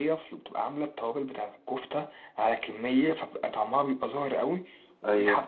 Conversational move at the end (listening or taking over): listening